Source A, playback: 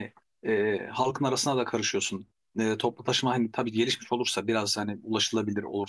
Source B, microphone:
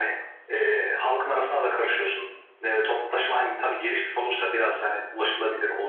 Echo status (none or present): present